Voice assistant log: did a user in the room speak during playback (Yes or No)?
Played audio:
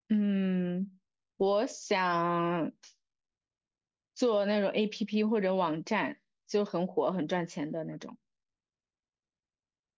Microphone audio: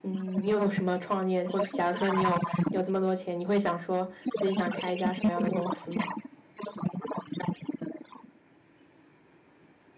Yes